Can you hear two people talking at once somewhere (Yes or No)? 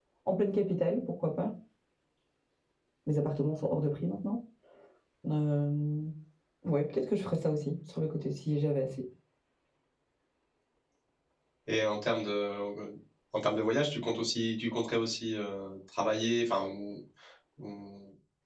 No